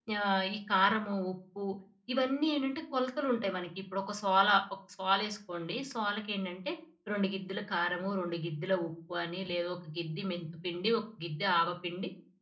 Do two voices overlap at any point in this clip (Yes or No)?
No